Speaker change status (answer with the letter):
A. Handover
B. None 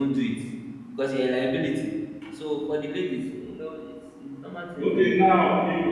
A